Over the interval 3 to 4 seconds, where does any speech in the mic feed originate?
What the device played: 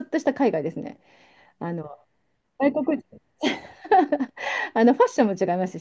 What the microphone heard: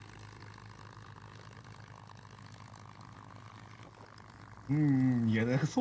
neither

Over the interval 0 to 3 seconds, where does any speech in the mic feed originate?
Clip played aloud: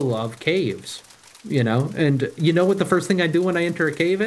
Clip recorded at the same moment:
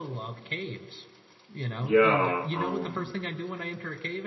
both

